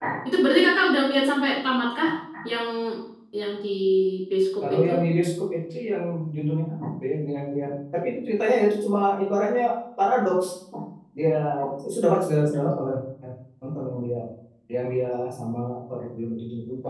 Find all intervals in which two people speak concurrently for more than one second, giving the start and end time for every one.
none

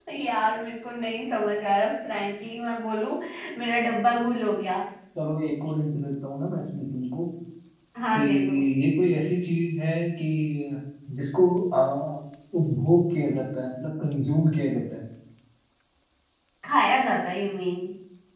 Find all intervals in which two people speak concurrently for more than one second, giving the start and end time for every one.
none

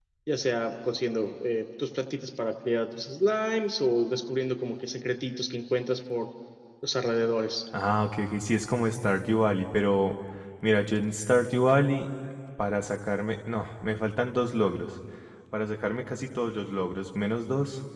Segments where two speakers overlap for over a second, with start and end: none

